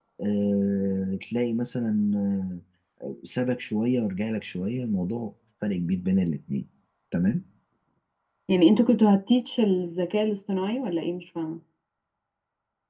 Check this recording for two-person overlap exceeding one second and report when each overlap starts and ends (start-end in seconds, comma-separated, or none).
none